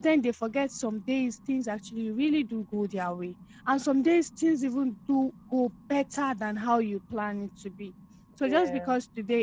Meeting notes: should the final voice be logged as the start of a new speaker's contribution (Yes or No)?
No